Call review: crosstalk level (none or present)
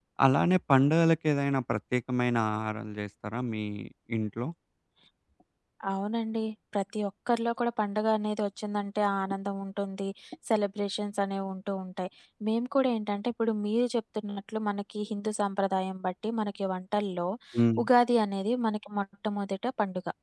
none